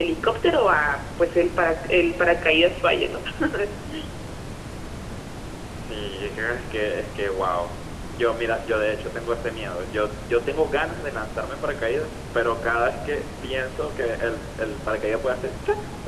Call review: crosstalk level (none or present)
none